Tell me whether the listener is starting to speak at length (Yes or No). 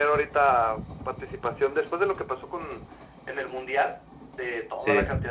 No